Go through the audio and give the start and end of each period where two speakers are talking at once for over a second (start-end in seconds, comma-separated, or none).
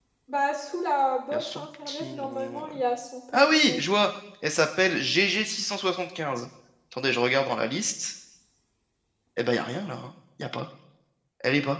1.3-2.8